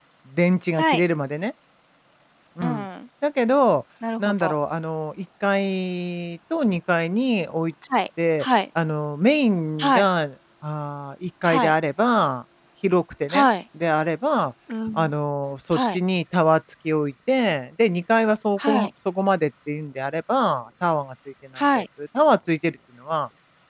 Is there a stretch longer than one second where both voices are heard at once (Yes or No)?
No